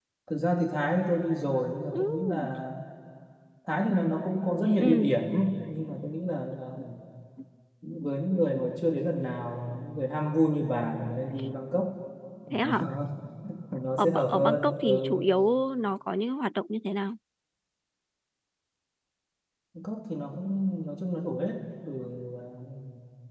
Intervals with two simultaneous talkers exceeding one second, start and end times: 14.0-15.2

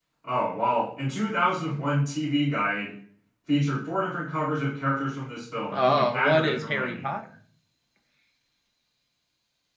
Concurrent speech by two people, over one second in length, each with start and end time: 5.7-7.1

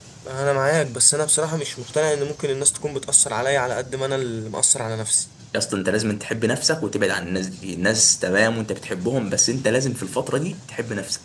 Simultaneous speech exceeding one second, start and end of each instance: none

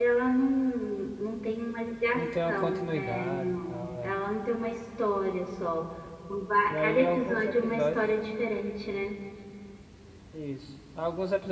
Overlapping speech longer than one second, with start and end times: 2.1-4.2, 6.7-8.1

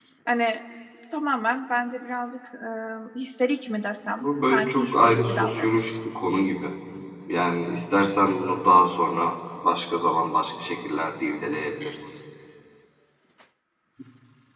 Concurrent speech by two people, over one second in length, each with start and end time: 4.2-5.9

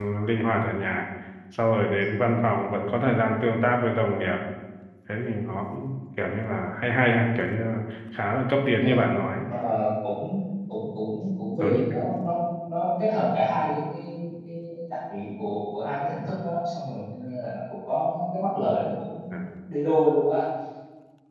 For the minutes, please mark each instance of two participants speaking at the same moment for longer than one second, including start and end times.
none

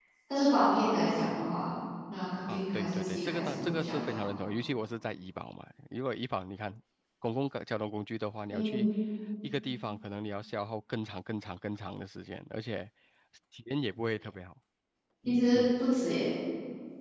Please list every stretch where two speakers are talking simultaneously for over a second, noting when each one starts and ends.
2.5-4.2

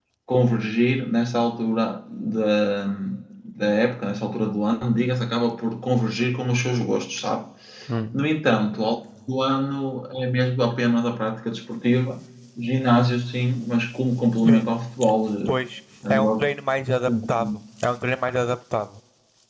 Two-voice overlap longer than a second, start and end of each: none

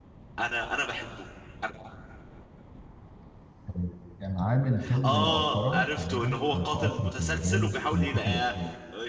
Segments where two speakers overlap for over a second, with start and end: 5.0-8.4

